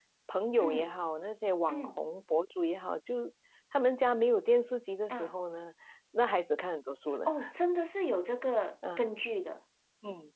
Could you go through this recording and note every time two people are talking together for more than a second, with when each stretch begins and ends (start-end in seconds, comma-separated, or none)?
none